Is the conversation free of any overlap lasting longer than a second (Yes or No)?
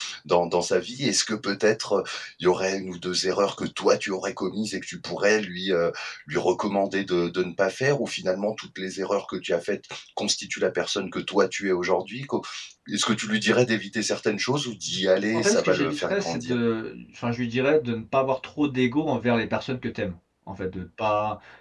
No